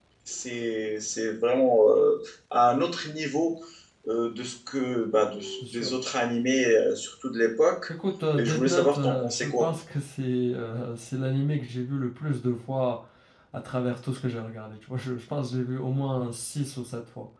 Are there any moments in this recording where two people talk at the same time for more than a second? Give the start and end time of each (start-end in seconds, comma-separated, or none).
8.3-9.7